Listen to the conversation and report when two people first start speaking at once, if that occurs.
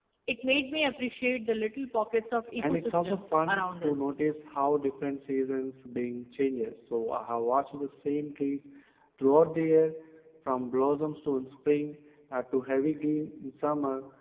2.6 s

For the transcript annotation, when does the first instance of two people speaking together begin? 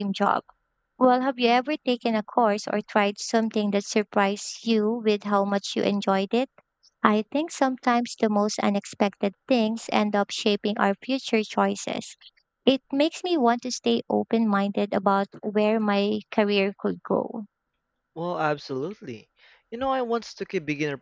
none

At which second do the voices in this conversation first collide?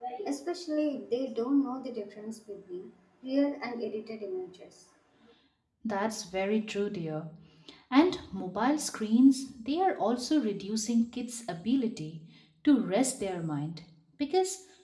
none

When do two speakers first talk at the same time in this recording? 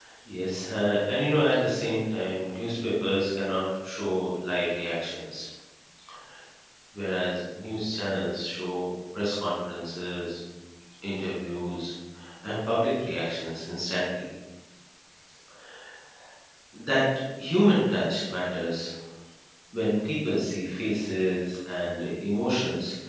none

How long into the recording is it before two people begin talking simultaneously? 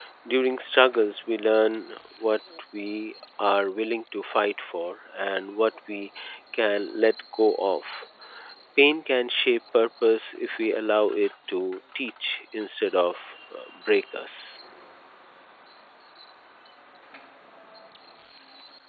none

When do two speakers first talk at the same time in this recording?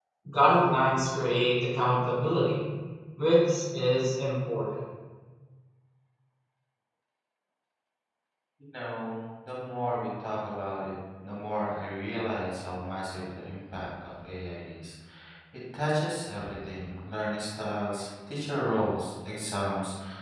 none

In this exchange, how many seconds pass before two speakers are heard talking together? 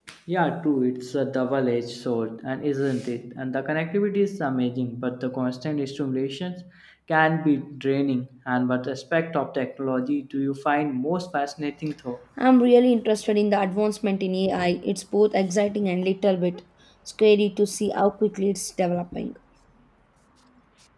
none

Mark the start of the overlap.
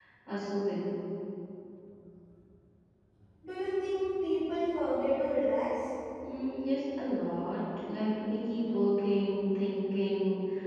none

